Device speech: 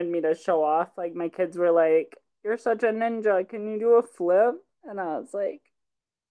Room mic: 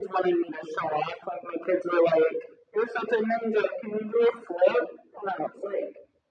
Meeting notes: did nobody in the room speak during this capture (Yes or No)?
Yes